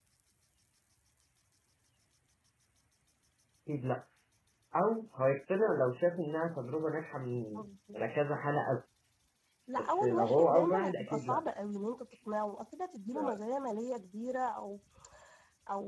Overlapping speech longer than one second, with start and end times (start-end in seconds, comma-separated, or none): 9.8-11.4